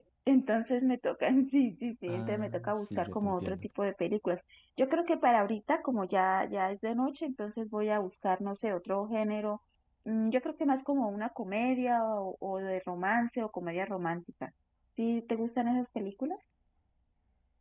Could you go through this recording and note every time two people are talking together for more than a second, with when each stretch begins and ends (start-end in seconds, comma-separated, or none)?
2.1-3.6